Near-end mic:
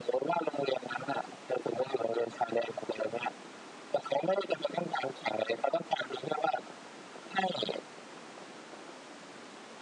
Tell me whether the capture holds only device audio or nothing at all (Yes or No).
Yes